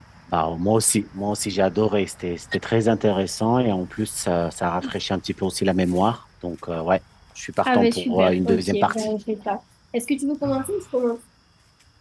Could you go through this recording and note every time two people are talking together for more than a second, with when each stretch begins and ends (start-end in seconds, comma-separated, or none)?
7.7-9.1